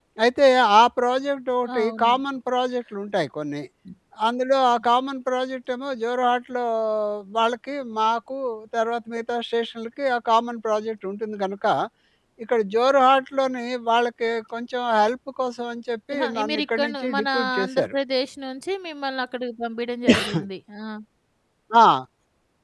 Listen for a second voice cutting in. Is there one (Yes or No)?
Yes